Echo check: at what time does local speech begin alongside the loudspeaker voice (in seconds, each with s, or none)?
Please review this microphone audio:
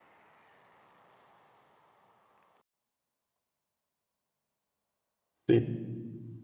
5.5 s